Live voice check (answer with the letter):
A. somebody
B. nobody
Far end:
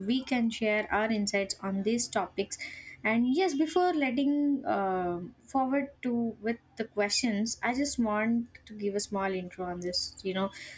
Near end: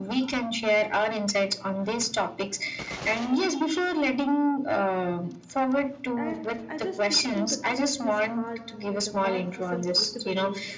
A